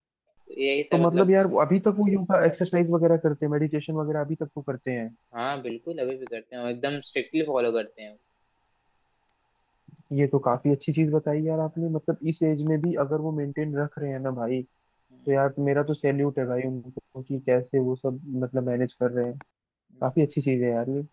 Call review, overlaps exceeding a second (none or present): none